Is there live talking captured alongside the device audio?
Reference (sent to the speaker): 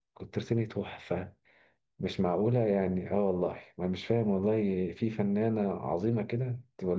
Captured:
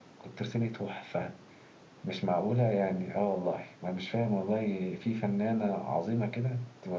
No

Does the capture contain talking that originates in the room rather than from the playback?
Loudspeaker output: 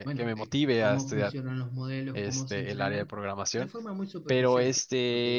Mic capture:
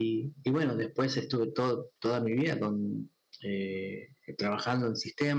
Yes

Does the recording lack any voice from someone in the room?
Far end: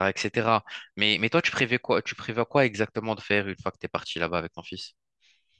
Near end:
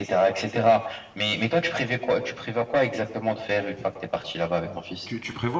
No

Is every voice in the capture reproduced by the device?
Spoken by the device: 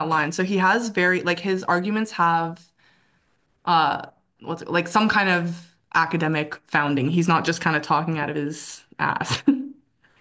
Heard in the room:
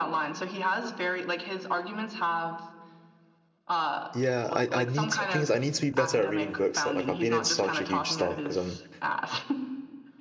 No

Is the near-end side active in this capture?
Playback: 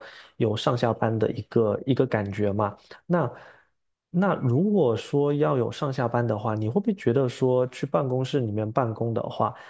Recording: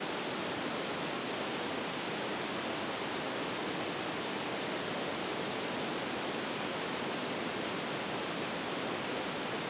No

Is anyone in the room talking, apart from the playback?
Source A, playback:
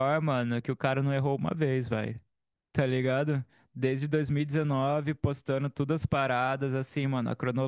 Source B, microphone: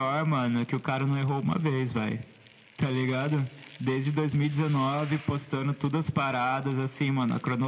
No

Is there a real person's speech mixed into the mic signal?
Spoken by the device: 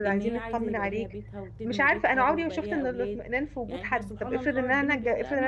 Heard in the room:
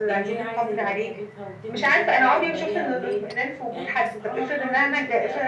No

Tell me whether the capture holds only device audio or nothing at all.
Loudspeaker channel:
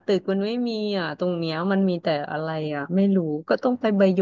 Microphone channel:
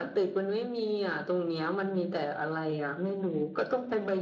Yes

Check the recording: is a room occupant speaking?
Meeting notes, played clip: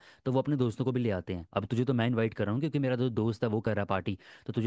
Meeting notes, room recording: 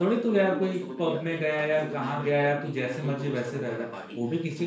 Yes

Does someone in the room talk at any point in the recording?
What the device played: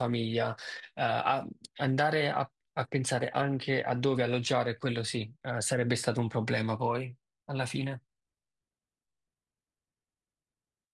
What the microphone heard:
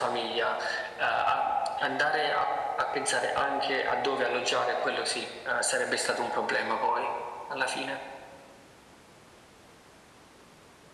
No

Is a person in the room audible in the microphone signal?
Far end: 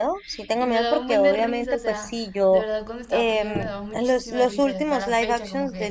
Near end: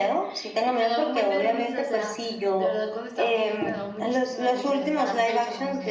No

